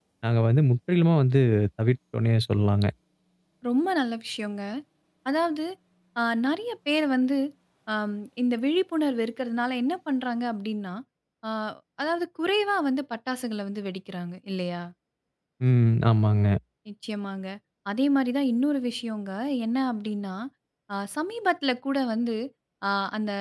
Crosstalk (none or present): none